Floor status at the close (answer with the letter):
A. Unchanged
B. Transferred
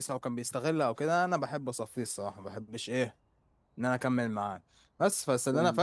A